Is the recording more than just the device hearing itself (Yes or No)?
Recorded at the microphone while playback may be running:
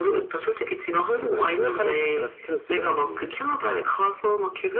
No